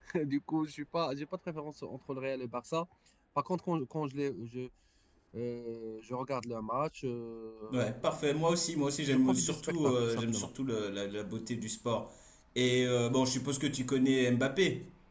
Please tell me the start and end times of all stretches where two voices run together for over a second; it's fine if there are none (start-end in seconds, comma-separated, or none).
9.1-10.5